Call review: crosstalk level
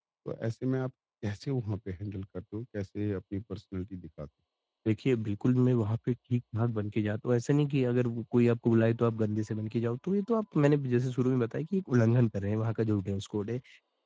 none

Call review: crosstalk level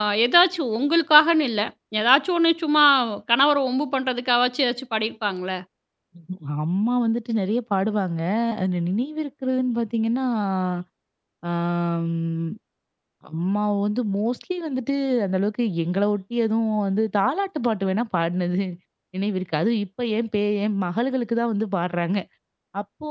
none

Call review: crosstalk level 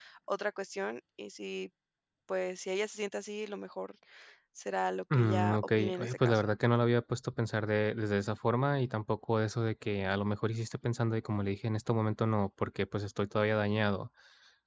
present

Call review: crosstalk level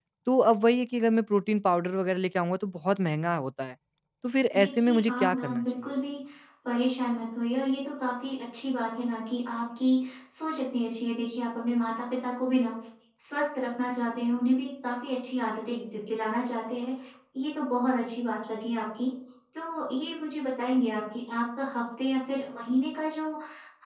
present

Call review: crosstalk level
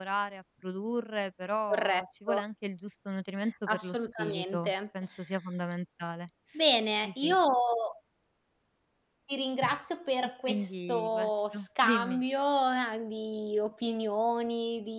present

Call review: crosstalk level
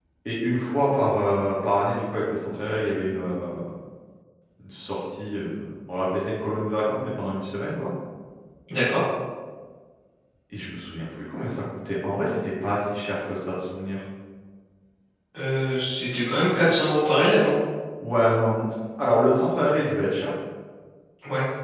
none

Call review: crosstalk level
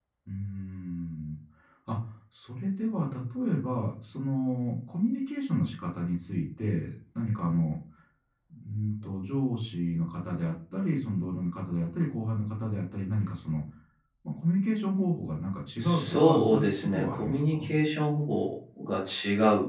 present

